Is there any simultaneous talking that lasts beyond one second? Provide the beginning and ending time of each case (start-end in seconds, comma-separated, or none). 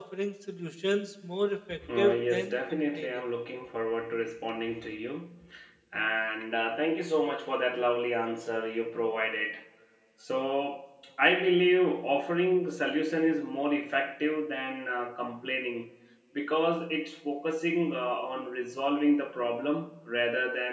2.0-3.2